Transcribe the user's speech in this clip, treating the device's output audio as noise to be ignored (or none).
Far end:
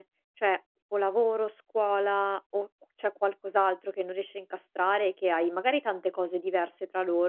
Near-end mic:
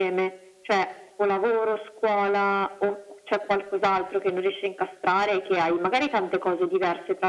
none